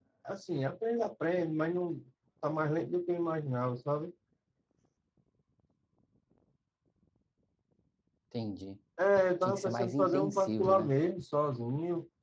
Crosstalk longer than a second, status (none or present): present